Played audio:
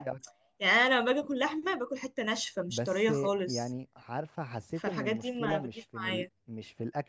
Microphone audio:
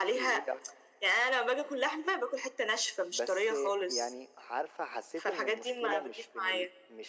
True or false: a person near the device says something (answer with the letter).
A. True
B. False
B